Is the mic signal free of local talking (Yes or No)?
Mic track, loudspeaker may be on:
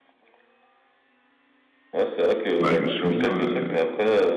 No